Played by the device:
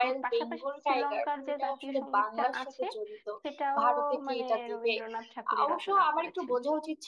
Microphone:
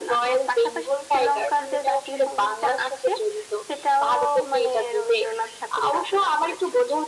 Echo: present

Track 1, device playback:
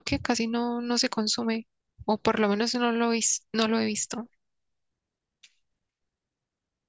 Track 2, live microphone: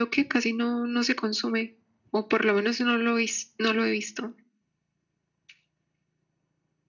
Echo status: present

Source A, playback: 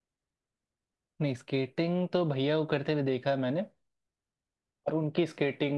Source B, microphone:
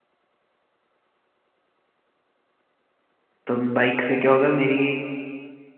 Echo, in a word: none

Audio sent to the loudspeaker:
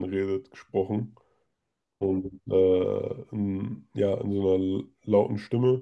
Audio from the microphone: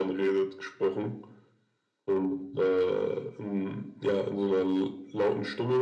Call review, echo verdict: present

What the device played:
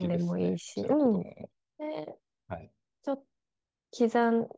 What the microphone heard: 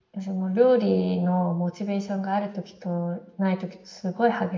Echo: none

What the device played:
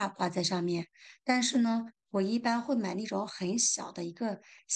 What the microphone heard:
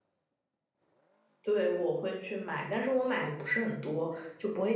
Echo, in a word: none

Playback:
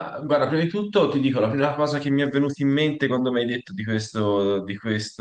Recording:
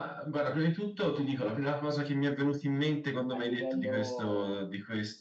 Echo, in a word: present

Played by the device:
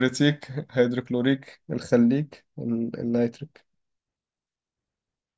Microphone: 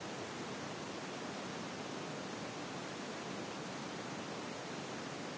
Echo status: none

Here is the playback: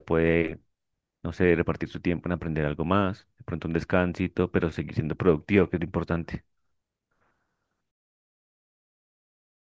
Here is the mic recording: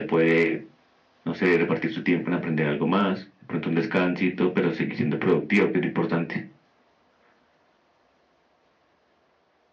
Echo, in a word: present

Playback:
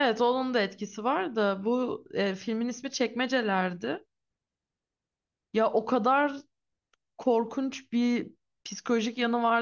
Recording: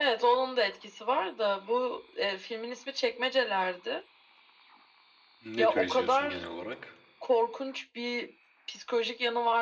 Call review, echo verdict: present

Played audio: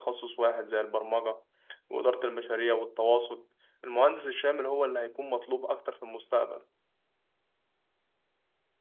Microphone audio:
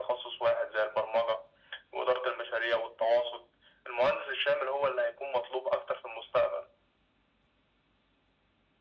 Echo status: present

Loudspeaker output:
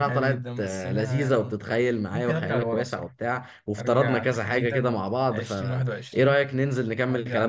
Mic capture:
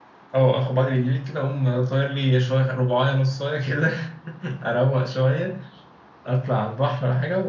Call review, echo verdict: none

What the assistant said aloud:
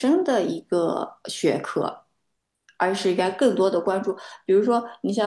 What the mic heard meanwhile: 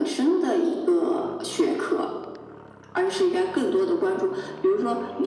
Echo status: present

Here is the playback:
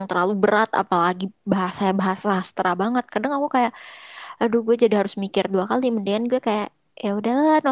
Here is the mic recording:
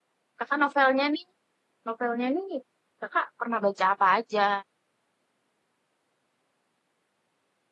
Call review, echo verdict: none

